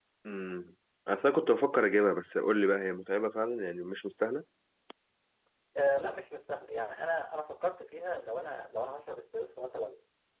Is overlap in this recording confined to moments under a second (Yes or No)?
Yes